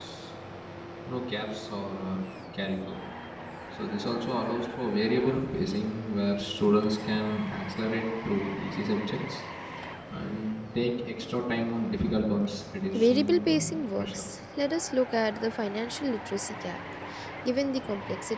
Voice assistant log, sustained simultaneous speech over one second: present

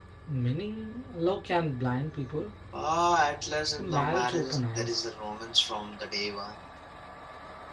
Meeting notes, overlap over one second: present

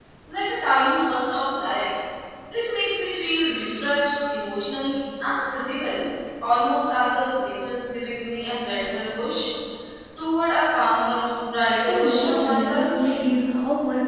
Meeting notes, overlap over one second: present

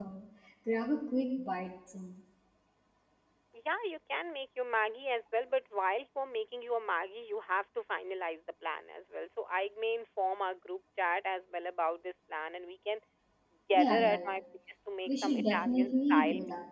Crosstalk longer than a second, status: present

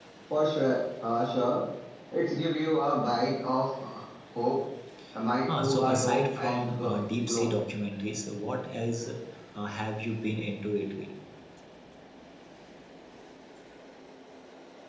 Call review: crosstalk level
present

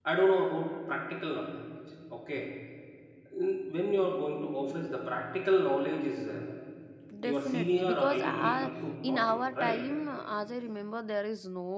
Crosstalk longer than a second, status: present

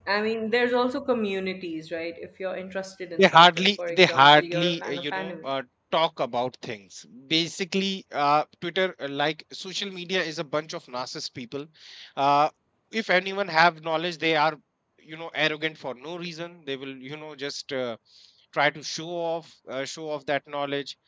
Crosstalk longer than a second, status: present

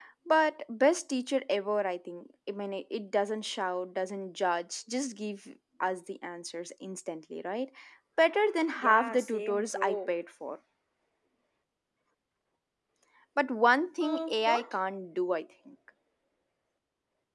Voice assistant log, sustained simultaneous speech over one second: present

